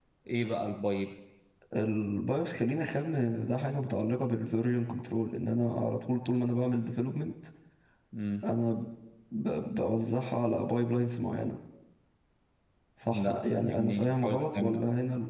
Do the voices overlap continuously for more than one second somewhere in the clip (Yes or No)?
Yes